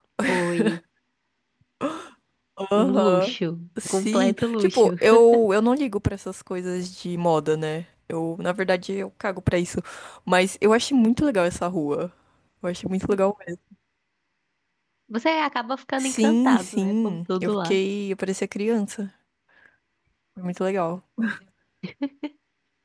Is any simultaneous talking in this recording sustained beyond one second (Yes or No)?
Yes